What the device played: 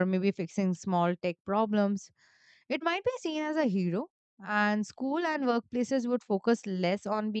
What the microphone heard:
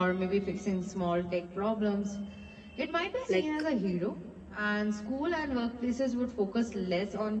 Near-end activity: present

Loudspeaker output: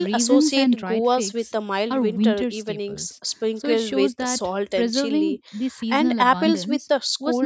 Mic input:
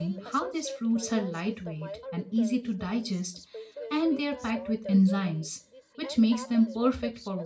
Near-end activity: present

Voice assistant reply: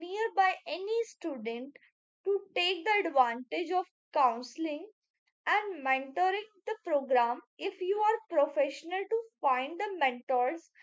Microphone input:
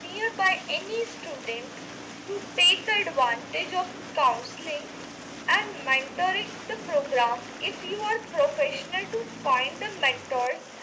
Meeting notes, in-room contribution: none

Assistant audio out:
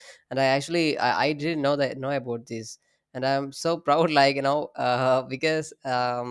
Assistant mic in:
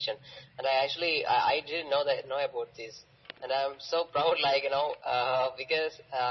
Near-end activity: none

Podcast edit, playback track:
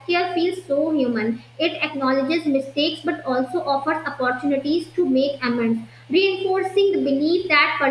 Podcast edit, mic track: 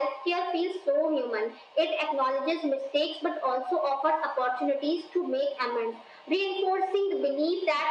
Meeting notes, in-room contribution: none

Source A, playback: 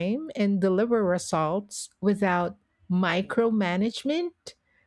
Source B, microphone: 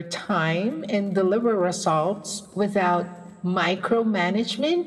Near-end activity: none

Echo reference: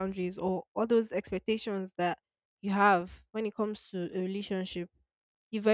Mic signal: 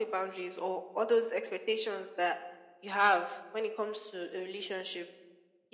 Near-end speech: none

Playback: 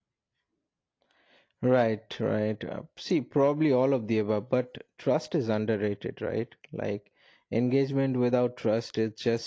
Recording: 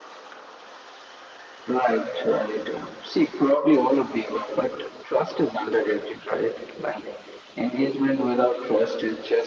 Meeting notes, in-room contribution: none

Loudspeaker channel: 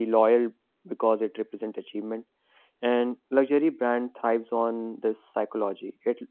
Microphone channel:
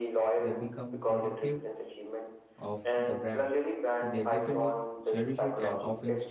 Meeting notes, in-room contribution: present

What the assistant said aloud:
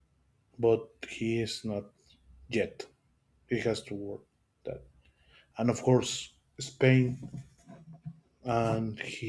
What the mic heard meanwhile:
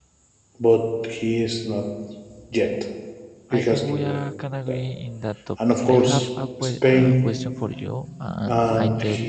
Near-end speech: present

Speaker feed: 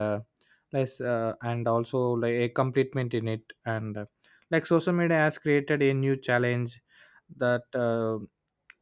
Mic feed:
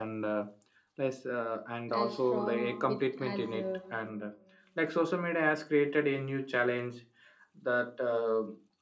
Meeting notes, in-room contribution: present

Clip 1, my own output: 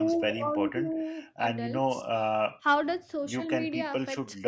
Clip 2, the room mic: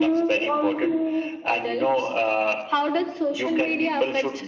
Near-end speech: none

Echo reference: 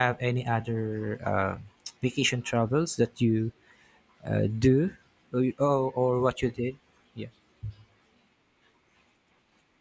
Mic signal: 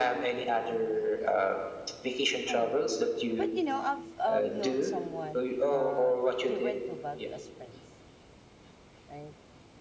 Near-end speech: present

